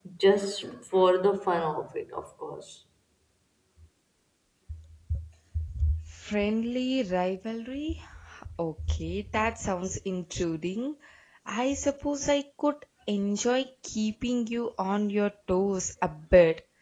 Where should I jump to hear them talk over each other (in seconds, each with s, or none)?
none